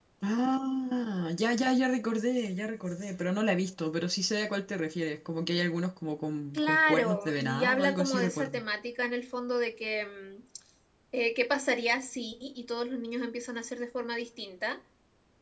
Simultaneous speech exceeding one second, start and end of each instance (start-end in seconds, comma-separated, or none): 6.5-8.6